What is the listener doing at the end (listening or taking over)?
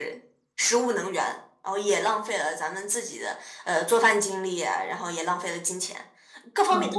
taking over